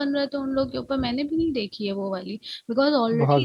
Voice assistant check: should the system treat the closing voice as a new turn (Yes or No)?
No